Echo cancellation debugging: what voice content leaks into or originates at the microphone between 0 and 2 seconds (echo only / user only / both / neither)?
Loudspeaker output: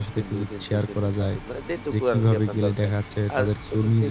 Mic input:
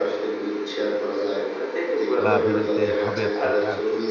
echo only